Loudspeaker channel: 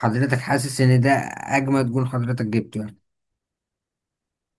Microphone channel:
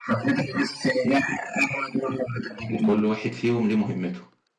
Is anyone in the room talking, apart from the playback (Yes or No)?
Yes